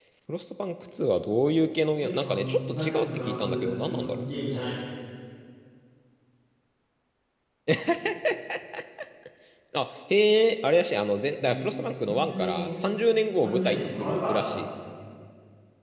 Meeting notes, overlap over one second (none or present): present